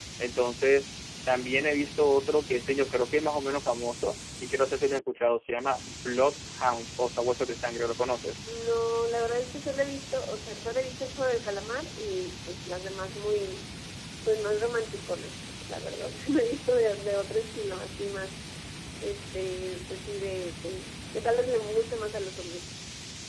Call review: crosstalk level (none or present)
none